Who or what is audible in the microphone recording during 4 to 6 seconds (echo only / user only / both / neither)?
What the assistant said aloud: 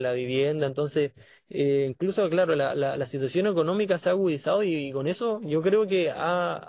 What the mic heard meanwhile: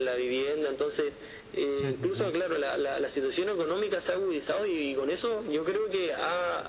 echo only